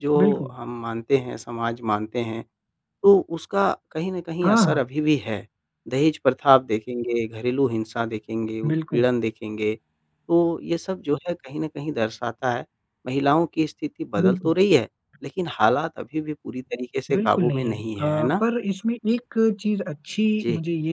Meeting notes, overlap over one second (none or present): present